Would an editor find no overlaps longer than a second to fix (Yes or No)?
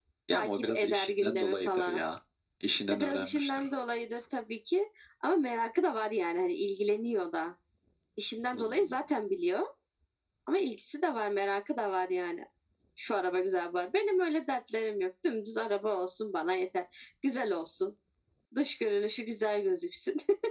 No